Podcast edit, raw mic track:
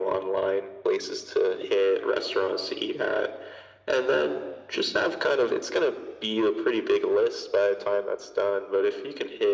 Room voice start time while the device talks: none

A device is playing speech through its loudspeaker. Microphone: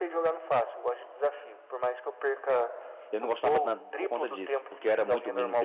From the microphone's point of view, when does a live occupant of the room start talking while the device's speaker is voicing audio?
3.1 s

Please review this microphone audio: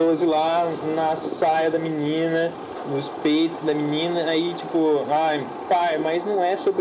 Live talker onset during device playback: none

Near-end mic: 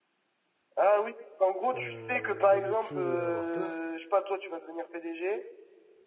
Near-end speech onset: 1.8 s

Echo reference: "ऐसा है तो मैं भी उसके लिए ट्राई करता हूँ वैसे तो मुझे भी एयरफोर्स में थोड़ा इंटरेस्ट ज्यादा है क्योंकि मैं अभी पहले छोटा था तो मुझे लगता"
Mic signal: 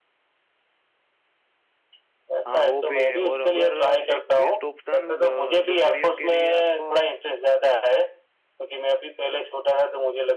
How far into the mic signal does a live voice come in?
2.5 s

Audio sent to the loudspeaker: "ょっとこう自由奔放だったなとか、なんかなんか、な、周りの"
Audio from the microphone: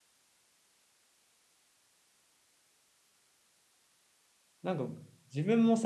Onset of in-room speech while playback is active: 4.6 s

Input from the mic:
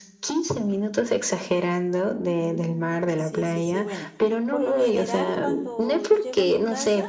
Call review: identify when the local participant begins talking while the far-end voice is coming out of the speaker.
2.4 s

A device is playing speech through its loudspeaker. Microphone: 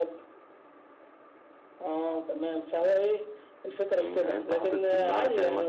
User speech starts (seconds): 4.0 s

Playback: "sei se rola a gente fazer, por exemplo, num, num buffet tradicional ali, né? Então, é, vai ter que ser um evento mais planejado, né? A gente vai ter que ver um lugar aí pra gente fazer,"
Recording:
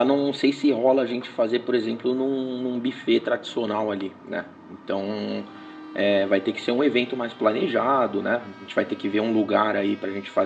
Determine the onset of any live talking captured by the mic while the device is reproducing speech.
none

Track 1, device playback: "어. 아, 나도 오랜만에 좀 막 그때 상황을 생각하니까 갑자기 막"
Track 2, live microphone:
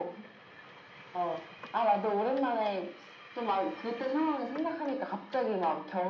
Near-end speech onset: none

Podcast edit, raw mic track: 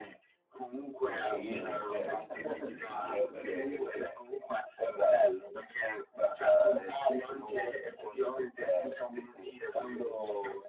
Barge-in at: 0.9 s

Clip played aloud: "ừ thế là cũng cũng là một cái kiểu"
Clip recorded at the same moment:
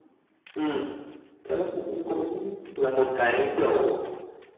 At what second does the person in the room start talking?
none

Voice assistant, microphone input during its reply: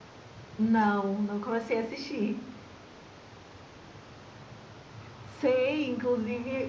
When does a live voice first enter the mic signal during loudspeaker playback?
none

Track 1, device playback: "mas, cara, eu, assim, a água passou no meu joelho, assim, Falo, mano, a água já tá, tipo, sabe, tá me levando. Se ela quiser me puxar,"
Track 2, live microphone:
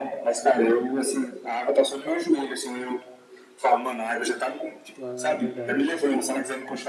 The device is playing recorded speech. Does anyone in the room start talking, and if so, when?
5.0 s

